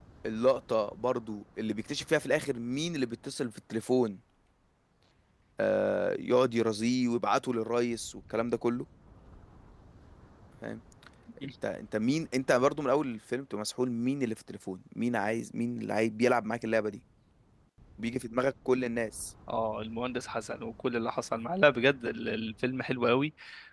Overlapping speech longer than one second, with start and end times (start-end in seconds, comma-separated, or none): none